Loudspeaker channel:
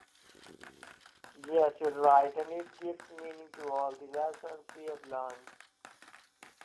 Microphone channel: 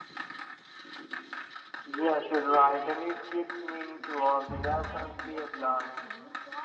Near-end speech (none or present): present